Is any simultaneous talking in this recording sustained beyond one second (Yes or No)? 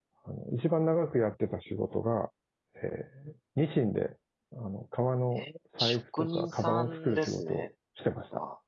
Yes